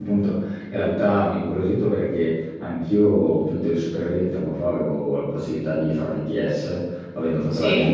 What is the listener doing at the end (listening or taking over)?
listening